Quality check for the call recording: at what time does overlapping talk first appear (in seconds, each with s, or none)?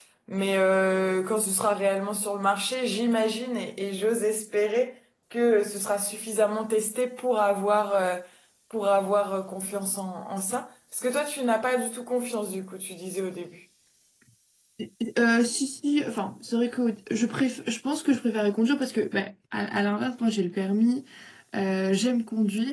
none